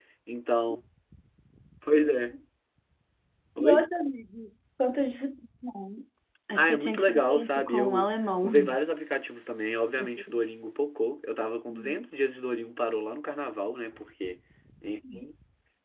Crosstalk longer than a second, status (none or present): present